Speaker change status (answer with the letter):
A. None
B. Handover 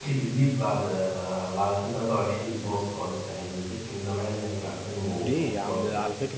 B